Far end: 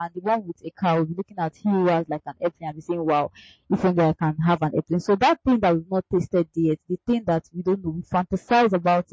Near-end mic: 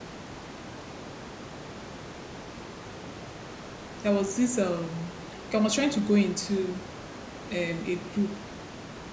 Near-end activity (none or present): present